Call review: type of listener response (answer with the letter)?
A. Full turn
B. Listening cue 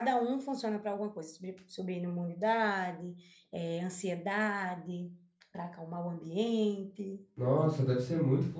A